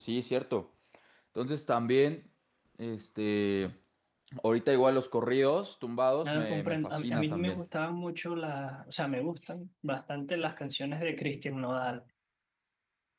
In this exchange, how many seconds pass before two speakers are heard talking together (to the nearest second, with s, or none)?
6 s